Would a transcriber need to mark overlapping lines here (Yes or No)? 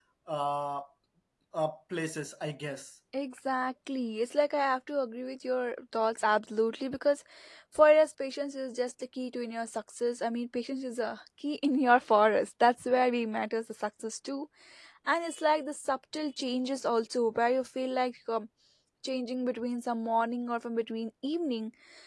No